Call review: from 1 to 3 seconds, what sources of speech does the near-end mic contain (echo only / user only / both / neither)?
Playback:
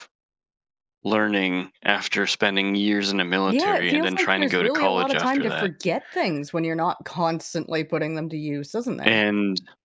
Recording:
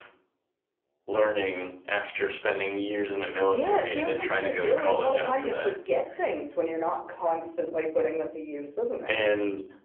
echo only